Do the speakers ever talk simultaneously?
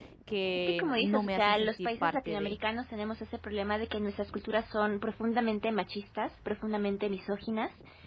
Yes, from 0.7 s

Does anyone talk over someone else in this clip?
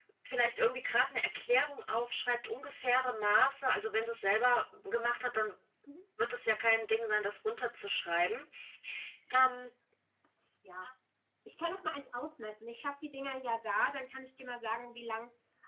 No

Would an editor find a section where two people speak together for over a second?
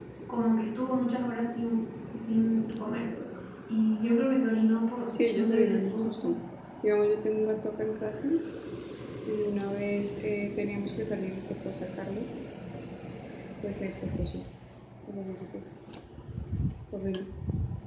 Yes, from 5.1 s

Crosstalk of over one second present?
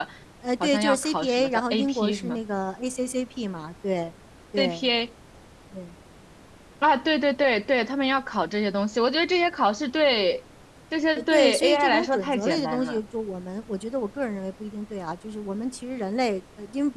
Yes, from 0.6 s

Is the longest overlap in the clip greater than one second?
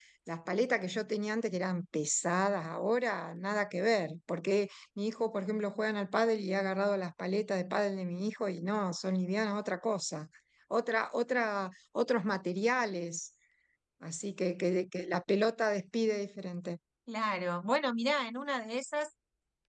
No

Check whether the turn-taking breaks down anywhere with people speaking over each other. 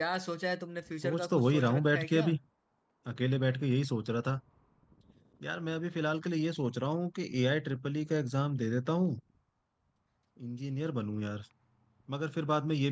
Yes, from 1.0 s

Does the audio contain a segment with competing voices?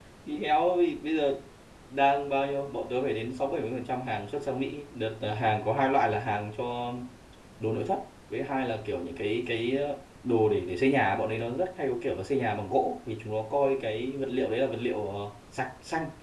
No

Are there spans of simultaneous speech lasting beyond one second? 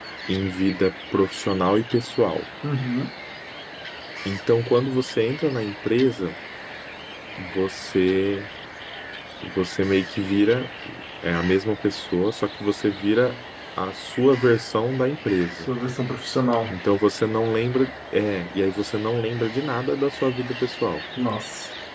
No

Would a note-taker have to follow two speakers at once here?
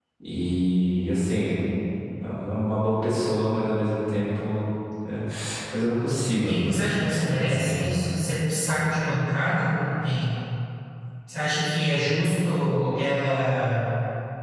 Yes, from 6.4 s

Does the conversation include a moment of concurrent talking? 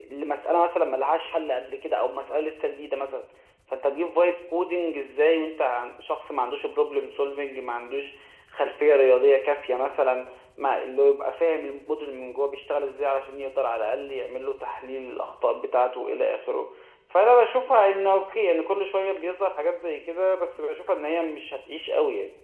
No

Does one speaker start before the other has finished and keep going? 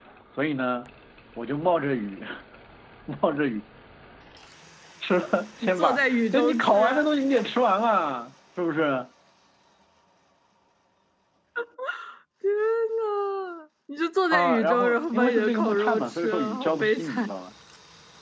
Yes, from 5.6 s

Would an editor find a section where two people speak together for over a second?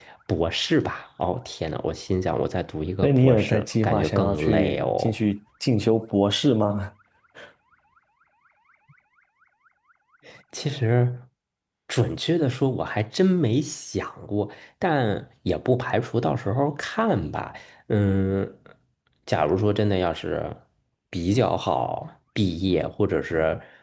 Yes, from 3.0 s

